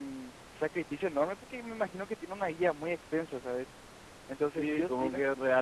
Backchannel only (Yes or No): No